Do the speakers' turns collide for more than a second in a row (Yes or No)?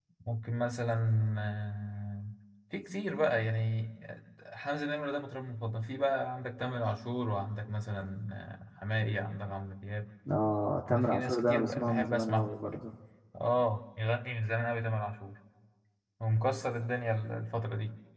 Yes